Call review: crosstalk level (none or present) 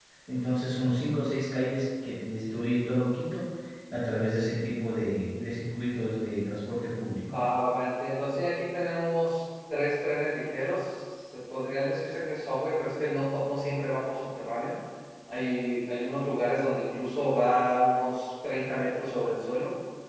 none